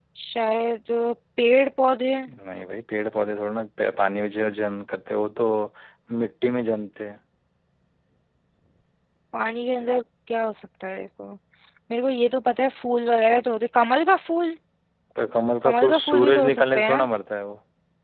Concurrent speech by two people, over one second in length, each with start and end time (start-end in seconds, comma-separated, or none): 15.6-17.1